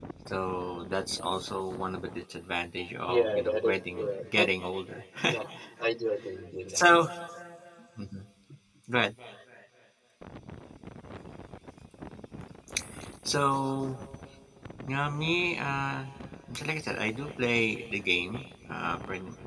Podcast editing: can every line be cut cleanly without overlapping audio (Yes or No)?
No